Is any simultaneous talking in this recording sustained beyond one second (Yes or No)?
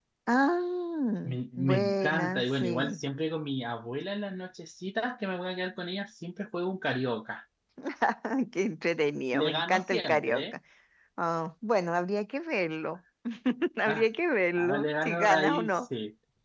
Yes